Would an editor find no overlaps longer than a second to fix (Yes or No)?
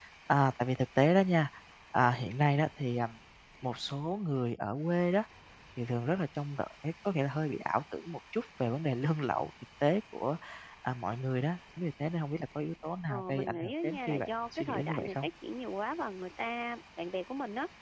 No